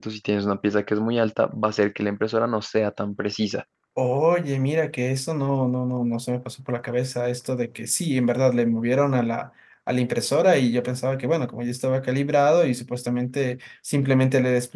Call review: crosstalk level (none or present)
none